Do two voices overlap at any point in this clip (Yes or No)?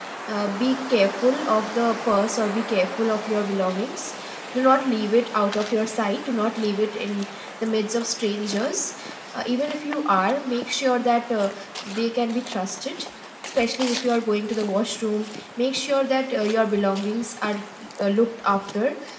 No